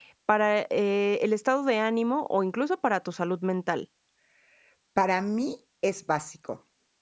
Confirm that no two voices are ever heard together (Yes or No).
Yes